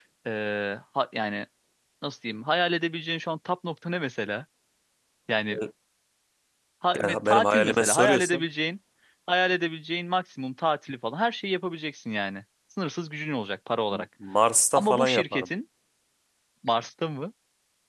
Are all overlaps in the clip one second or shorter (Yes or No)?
No